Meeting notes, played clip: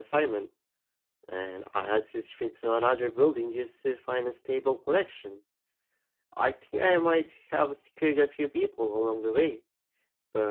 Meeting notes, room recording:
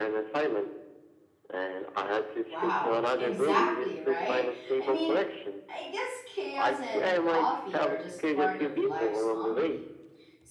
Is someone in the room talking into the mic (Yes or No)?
Yes